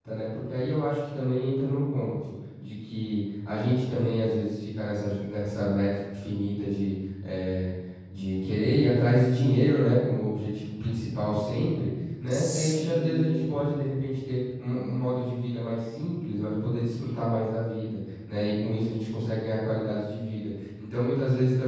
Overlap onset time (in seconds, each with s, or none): 12.3 s